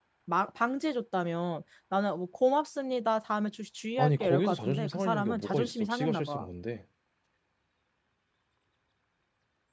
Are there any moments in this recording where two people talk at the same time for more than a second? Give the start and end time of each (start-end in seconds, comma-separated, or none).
4.0-6.5